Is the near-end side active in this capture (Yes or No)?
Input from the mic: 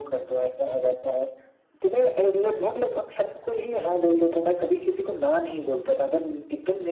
No